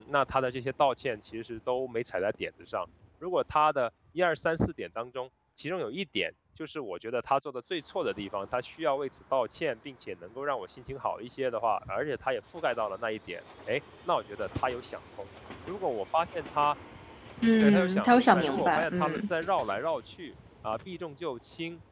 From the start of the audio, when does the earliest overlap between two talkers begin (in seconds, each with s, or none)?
17.6 s